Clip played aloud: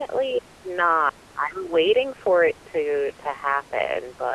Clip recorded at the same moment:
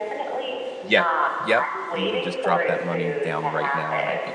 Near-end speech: present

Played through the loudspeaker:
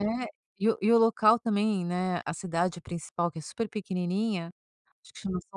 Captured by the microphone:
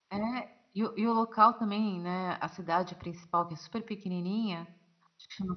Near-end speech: none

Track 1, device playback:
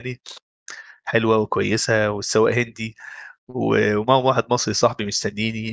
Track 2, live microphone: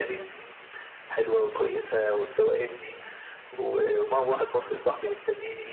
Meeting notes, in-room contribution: none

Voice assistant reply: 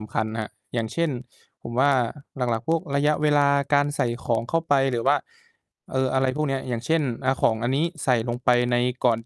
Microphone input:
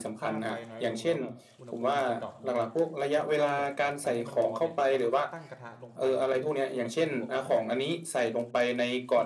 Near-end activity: present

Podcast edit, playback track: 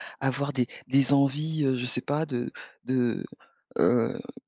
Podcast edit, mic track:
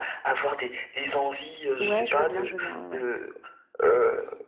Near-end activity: present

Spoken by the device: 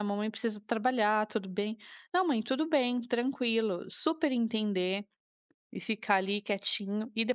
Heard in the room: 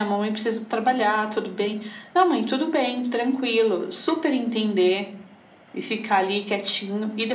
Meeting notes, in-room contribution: none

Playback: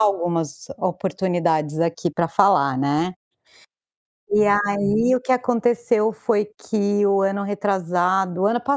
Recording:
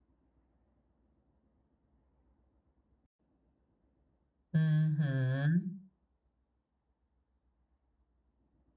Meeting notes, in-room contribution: present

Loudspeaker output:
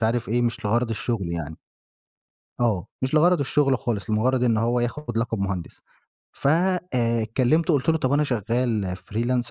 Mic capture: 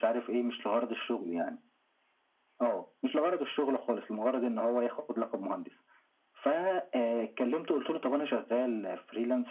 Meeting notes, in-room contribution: none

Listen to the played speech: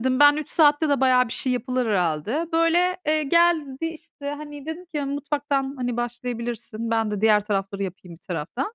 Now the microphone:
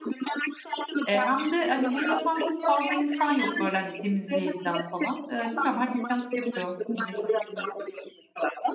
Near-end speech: present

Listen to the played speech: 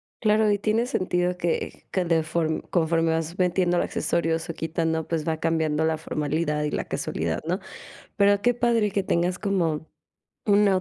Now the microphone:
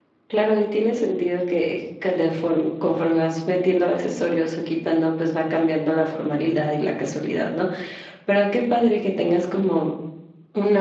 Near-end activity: none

